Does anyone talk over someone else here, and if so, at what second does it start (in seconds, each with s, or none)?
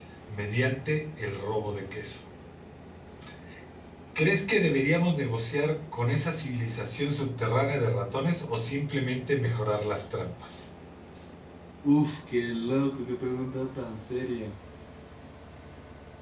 none